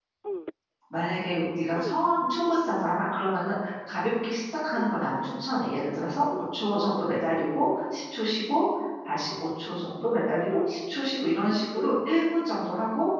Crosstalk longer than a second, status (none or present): none